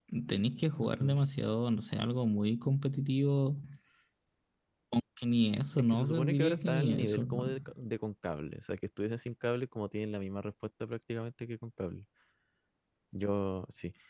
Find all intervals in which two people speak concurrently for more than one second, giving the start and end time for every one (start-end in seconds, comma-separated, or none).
5.8-7.5